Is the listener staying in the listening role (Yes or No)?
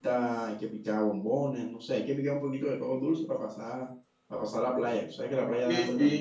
No